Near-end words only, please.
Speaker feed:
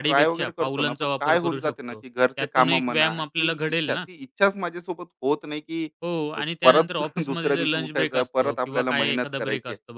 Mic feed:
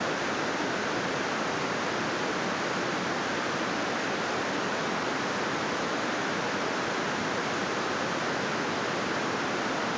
none

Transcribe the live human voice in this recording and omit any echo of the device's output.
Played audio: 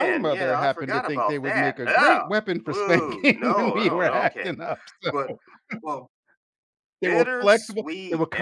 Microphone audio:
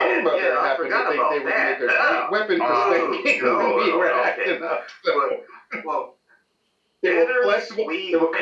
Oh, dude.

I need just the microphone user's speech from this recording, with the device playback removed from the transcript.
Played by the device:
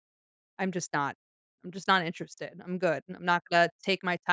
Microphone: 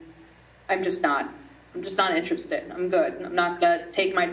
none

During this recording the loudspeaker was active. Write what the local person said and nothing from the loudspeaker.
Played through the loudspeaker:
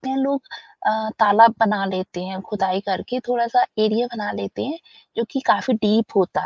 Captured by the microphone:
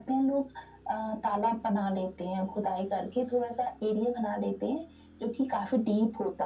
none

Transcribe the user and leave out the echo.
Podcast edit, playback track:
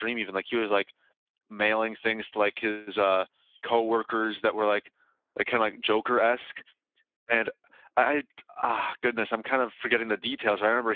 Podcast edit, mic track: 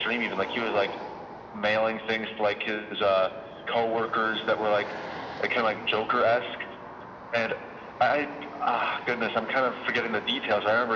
none

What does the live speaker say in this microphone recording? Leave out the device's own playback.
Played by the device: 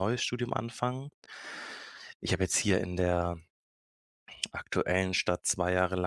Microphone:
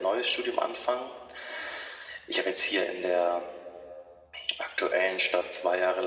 none

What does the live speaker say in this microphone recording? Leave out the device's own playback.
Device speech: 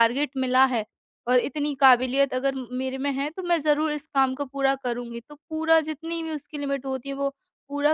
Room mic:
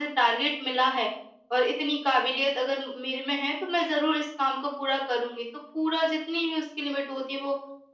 none

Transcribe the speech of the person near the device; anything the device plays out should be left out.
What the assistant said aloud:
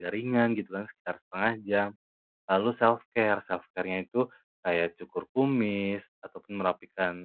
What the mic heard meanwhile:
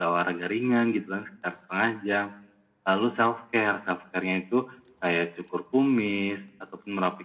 none

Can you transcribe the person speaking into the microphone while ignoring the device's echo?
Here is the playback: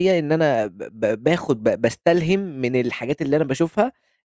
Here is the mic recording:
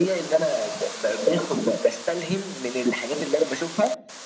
none

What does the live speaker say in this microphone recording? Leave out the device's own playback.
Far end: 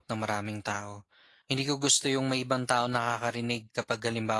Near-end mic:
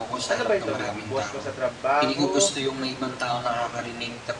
Ano ba ito, ma- boss mo sa trabaho,

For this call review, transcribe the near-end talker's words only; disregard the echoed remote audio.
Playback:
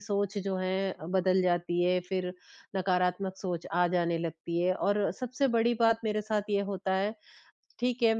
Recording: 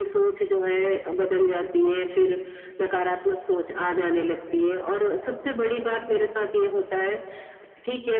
none

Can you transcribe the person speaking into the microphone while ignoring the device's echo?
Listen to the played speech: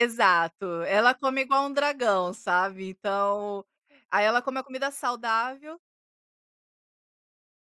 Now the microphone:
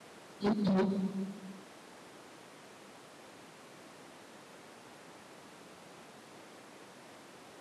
Uhum,

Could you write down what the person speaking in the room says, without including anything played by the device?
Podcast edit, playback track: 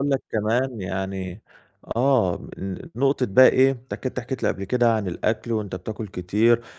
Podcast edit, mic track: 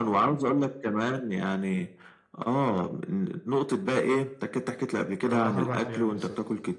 أنا باروح 4 أيام بالضبط.

